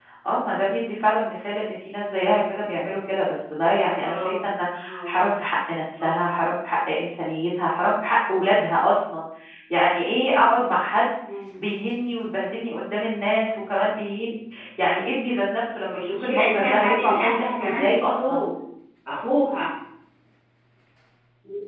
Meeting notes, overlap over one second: present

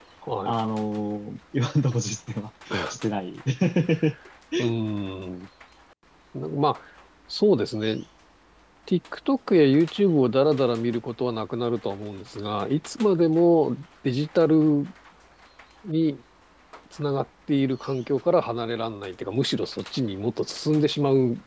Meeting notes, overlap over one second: none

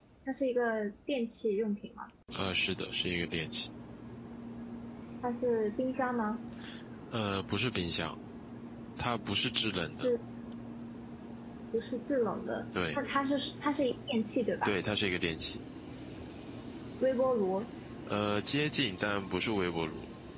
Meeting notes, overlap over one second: none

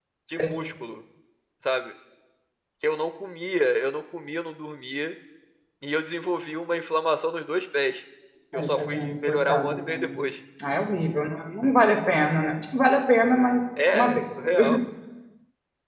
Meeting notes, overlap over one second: present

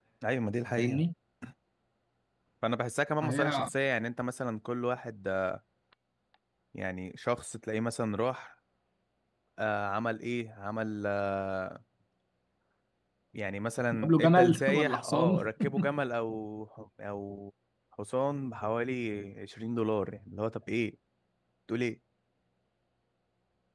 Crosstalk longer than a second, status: present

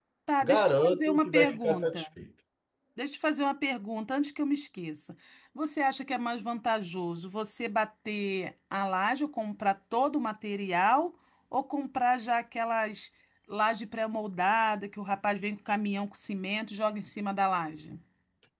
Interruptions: present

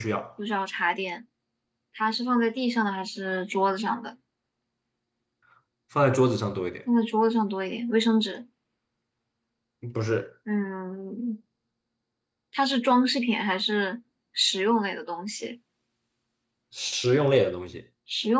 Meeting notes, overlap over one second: none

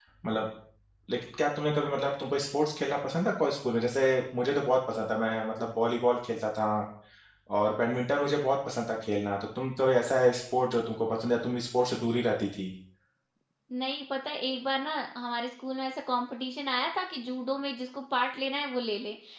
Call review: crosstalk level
none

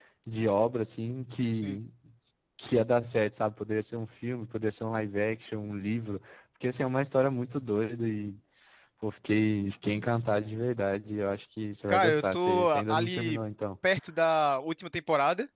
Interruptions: present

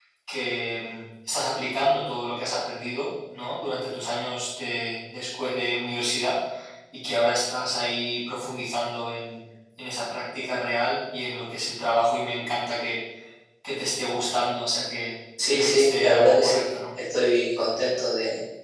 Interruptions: present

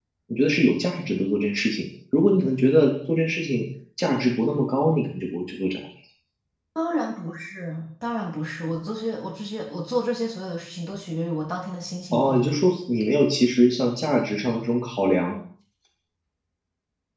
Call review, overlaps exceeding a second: none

